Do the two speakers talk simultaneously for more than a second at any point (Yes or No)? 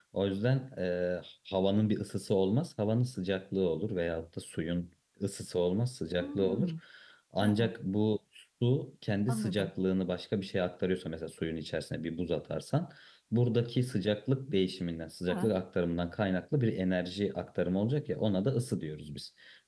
No